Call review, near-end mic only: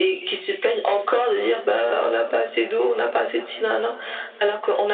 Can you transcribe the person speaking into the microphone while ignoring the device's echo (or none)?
none